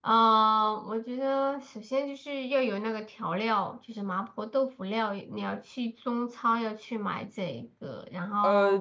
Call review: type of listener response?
taking over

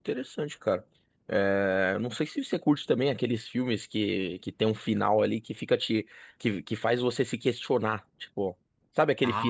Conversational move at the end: listening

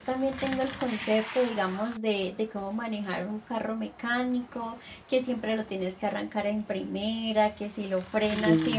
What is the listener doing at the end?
listening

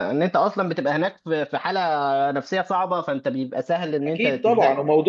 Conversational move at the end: taking over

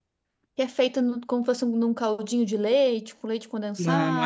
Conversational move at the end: taking over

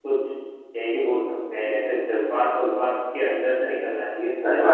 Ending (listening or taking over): taking over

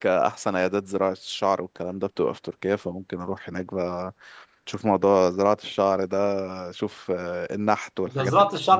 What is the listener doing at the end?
taking over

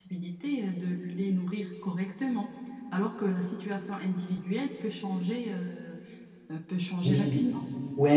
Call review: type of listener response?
taking over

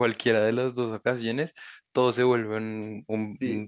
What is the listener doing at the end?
taking over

